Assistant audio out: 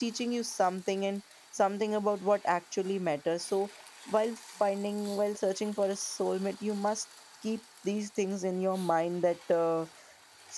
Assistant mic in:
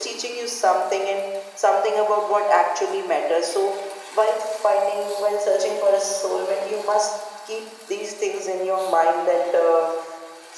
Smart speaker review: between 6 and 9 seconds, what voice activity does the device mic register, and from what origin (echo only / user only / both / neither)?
echo only